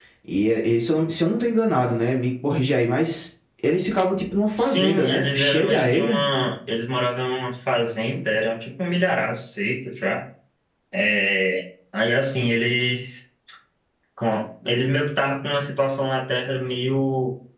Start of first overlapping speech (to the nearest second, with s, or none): 5 s